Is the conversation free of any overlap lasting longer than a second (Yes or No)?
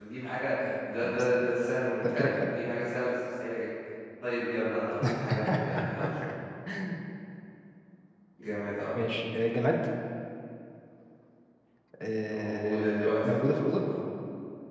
No